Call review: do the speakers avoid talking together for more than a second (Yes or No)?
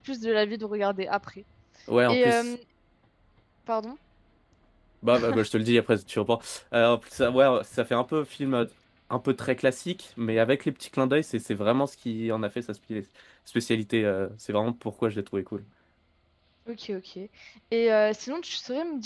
Yes